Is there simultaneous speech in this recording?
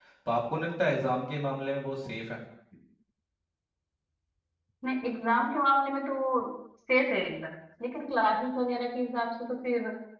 No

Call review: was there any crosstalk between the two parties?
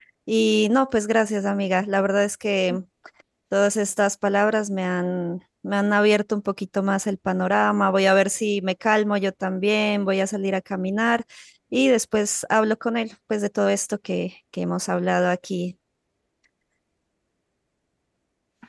No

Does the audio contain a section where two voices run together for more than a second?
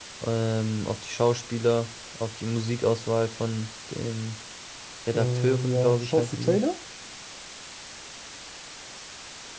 Yes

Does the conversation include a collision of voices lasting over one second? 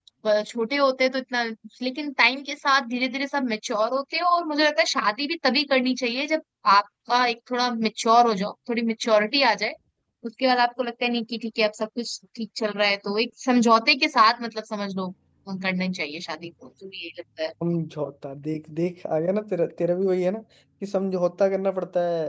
No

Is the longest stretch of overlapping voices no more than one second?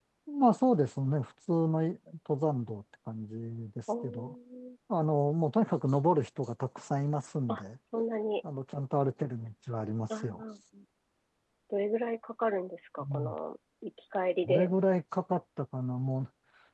Yes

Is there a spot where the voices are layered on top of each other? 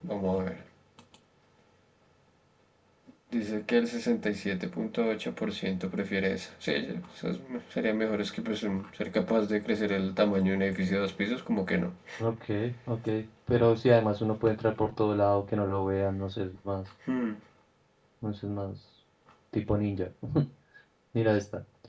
No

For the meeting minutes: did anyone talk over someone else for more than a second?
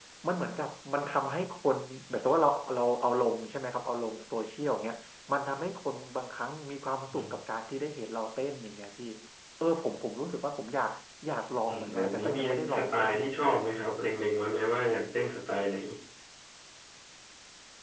Yes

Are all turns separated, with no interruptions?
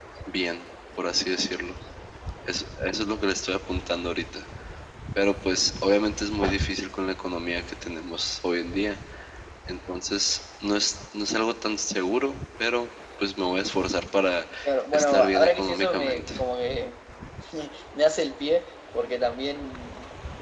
No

